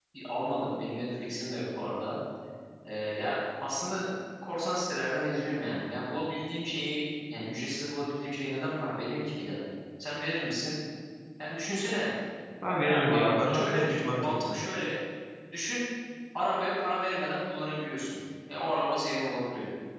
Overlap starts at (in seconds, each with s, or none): 12.8 s